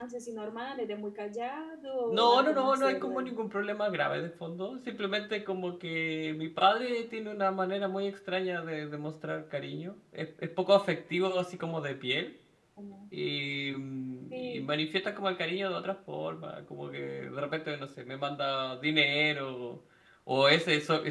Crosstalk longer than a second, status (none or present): present